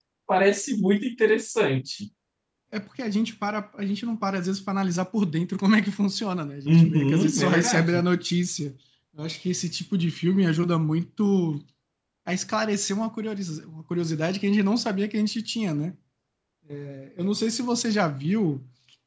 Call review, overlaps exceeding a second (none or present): present